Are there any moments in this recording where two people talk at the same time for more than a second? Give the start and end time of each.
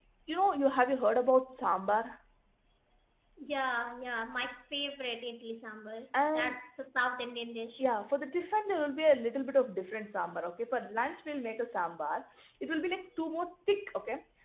none

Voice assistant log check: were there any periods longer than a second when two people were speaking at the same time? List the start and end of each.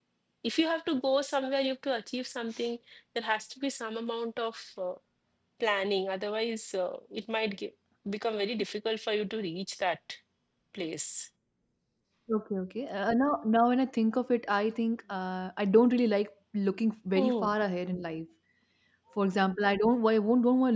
none

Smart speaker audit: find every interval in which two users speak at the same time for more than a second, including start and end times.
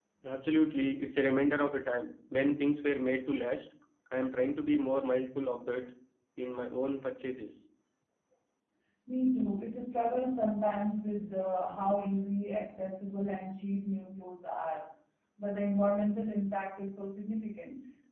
none

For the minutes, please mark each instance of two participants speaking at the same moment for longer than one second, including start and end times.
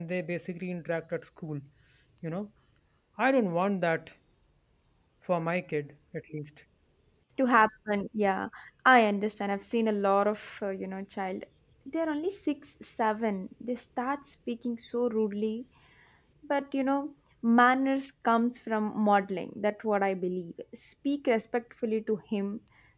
none

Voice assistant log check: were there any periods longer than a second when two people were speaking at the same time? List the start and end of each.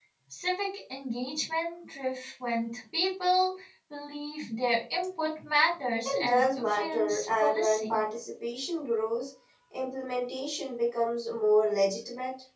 6.0-8.0

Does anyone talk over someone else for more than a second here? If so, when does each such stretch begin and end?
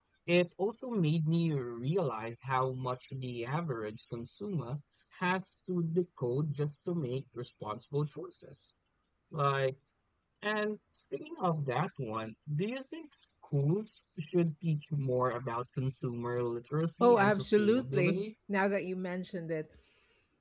17.0-18.2

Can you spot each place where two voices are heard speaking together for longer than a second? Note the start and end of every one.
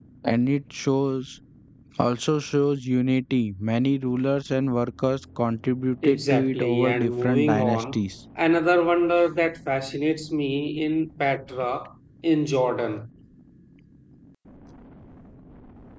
6.0-8.0

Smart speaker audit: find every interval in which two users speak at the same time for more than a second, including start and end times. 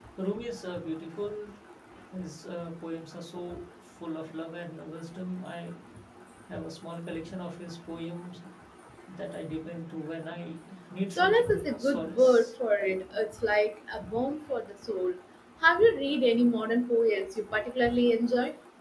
11.1-12.5

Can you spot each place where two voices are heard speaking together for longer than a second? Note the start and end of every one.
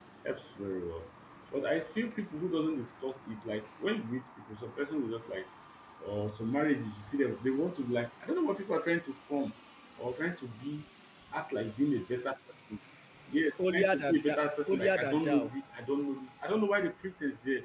13.7-15.5

